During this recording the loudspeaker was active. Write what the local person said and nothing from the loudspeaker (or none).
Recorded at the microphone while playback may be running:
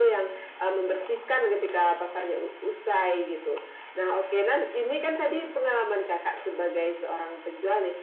none